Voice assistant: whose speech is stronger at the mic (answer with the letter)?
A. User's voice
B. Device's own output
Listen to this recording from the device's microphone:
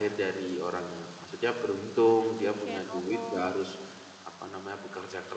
B